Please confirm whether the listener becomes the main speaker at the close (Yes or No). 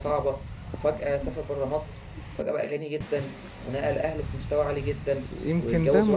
Yes